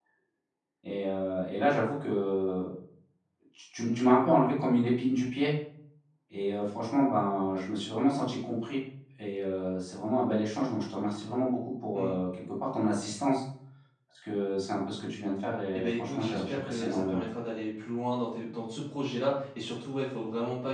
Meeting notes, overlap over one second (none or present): present